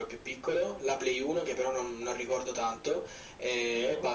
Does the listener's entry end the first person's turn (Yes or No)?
No